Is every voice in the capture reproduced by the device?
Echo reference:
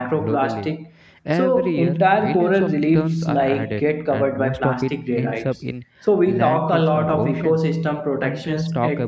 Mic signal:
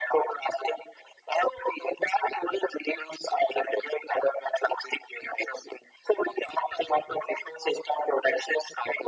Yes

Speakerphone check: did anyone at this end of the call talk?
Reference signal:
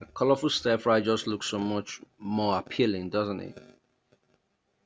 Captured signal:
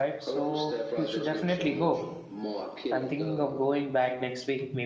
Yes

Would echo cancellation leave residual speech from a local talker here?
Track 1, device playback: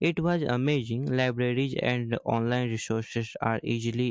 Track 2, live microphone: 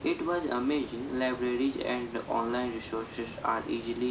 No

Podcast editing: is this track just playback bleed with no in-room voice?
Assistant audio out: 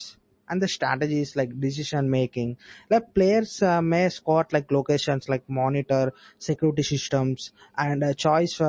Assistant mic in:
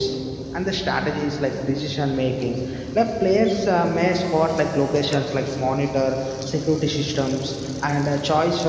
Yes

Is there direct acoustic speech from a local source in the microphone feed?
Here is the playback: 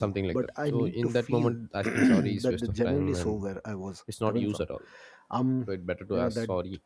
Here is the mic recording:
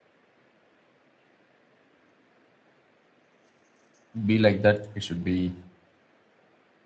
Yes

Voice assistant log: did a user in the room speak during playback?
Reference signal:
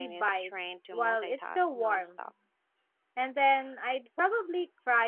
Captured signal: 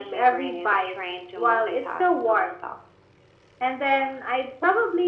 No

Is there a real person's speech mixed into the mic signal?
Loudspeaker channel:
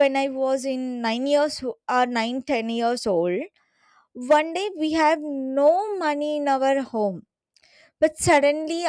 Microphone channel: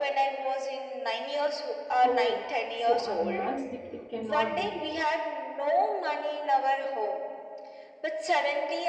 Yes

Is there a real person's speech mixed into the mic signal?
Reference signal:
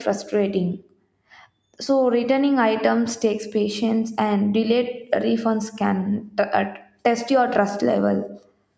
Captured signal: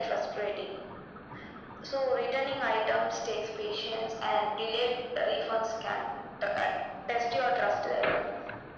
No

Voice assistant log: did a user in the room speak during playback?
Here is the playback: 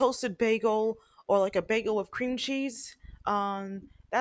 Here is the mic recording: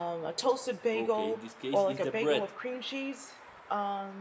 Yes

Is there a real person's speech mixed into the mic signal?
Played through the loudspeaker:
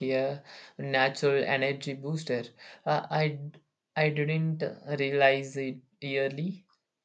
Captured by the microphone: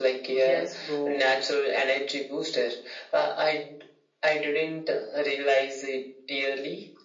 Yes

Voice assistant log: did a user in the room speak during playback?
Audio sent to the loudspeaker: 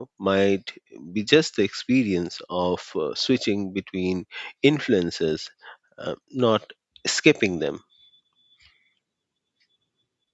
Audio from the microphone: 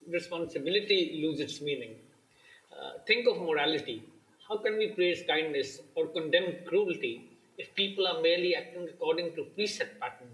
Yes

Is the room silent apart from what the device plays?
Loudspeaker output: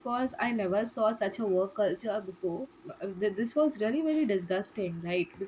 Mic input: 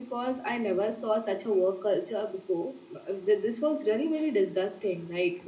Yes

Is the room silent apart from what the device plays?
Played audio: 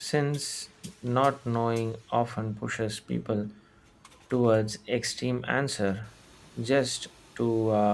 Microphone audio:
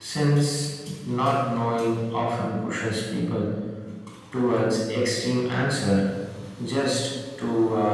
Yes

